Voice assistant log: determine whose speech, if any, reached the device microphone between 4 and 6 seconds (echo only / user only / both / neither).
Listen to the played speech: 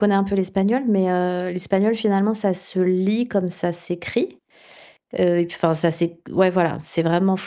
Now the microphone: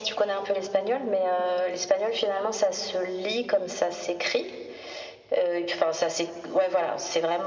echo only